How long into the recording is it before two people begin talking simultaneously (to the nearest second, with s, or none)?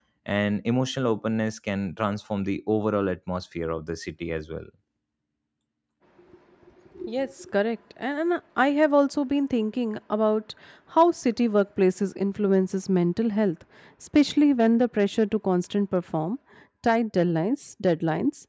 none